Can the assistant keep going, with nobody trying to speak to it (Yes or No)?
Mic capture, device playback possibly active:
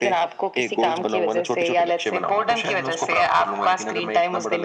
Yes